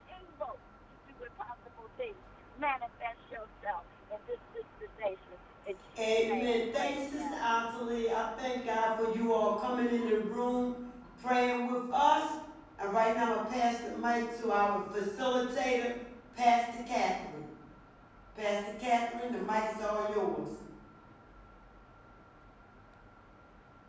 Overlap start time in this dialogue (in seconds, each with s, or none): 6.0 s